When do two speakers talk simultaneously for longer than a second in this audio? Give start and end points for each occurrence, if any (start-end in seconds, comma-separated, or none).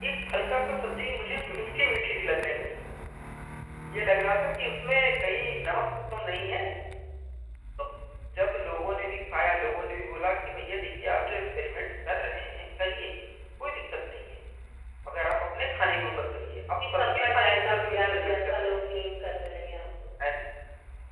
16.9-18.9